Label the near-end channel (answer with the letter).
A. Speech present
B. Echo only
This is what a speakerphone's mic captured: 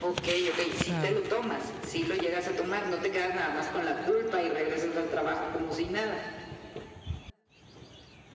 A